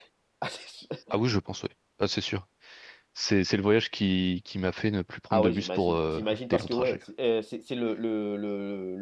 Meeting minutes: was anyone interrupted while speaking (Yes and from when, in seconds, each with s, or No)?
Yes, from 5.3 s